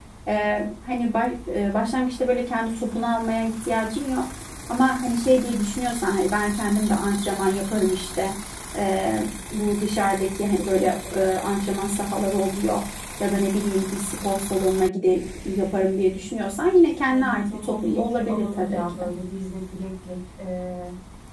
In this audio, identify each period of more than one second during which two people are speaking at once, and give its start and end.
17.1-19.0

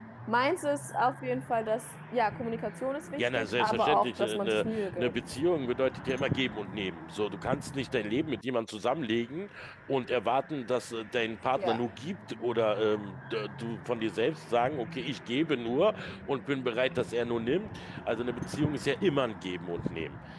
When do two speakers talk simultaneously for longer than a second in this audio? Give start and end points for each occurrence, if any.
3.2-5.4

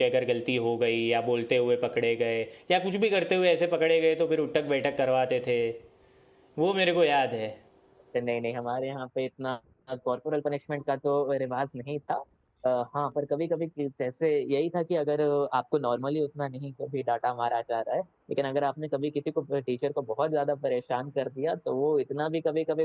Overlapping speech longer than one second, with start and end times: none

